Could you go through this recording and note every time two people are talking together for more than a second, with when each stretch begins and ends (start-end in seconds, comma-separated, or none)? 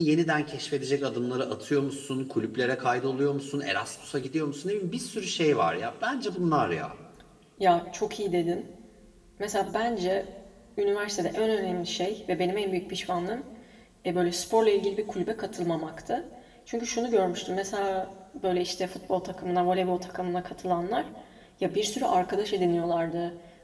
none